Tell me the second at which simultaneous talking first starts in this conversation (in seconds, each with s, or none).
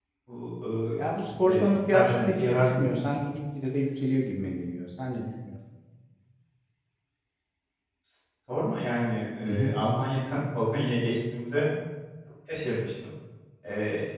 1.4 s